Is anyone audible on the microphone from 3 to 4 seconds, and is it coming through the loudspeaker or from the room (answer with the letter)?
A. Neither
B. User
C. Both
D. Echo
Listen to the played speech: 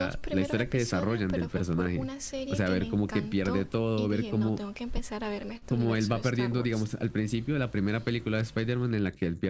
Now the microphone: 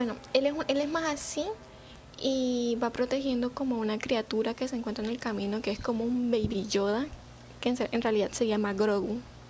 B